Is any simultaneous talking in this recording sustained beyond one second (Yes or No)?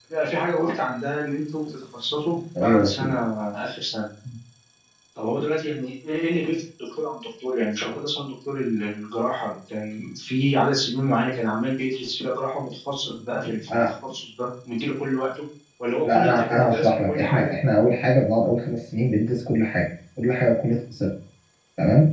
Yes